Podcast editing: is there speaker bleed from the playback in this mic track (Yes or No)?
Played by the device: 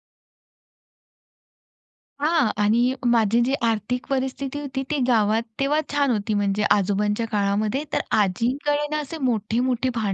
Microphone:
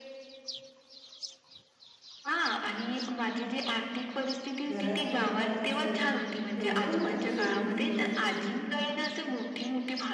Yes